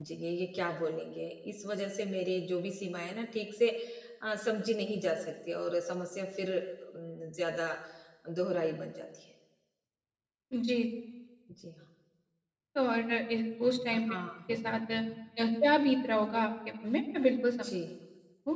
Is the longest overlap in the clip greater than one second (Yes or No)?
No